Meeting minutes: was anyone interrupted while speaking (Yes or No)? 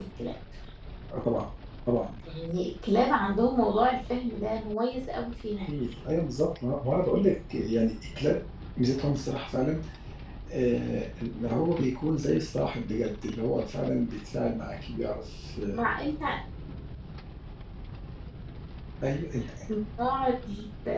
No